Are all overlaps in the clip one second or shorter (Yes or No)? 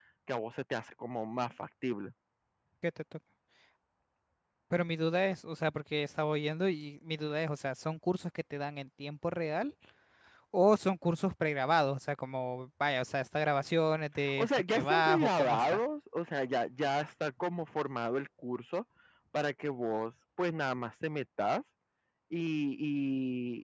No